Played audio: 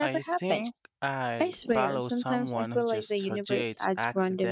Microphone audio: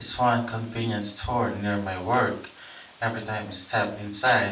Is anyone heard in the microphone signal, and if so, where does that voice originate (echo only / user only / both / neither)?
user only